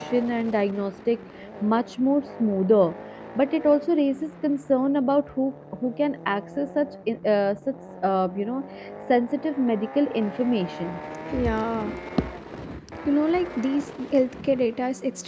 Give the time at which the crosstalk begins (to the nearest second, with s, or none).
none